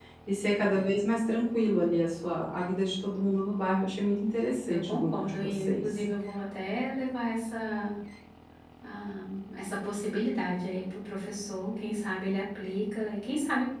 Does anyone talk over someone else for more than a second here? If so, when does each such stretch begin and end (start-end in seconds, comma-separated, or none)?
4.7-6.0